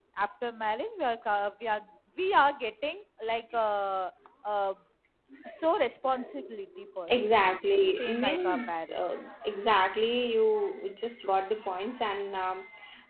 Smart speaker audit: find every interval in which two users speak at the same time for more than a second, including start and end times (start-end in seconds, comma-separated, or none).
7.1-9.0